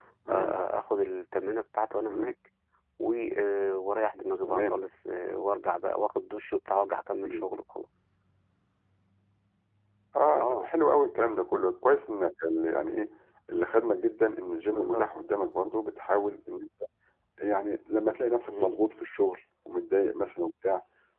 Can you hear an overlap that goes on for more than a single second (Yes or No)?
No